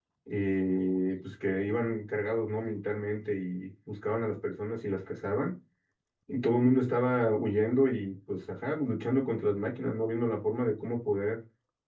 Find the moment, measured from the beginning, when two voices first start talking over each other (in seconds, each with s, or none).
none